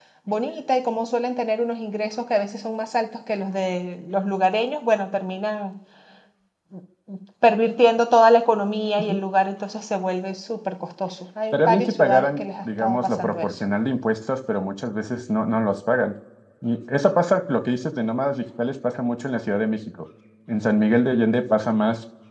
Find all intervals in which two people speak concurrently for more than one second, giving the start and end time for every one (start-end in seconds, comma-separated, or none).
11.5-13.5